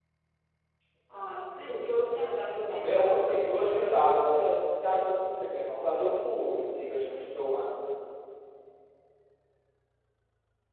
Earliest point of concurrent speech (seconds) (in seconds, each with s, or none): 2.7 s